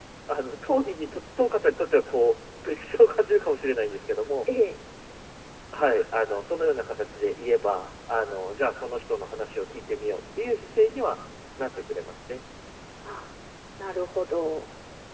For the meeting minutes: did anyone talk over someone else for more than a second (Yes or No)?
No